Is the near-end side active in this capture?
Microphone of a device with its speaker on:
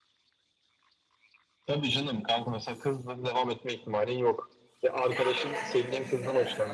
Yes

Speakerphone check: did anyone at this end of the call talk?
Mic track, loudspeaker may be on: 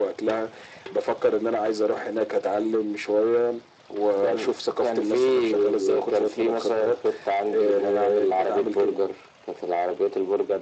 No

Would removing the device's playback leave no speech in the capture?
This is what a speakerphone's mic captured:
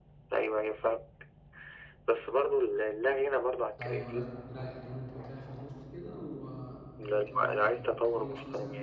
No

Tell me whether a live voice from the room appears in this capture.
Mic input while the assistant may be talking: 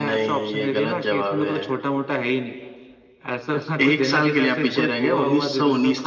No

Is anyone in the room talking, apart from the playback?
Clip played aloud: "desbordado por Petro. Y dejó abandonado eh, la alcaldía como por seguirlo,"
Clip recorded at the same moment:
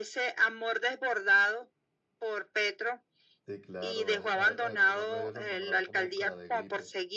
Yes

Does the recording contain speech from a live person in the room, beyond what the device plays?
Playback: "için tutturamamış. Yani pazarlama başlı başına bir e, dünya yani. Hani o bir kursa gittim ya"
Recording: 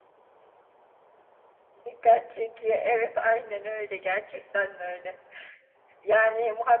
Yes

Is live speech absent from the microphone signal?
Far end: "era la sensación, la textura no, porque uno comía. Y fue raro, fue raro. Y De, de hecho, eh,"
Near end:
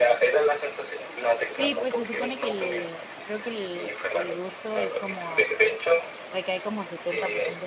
No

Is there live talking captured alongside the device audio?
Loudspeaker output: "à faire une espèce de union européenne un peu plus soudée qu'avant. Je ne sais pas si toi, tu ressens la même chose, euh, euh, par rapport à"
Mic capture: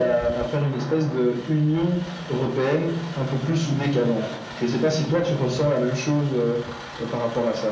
No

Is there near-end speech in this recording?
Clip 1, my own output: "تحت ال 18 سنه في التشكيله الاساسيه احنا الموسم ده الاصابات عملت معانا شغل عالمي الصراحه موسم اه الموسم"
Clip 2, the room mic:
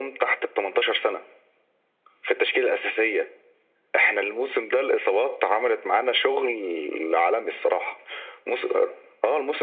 No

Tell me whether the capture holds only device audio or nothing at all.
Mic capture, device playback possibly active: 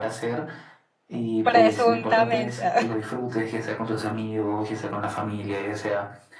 No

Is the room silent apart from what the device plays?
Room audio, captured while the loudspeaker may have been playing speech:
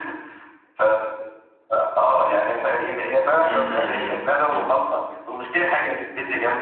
No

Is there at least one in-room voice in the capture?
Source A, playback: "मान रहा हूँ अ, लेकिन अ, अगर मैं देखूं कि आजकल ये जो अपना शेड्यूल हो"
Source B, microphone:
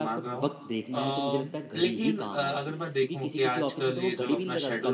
Yes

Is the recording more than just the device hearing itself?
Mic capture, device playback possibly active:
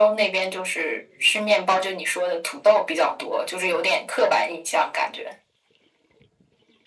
No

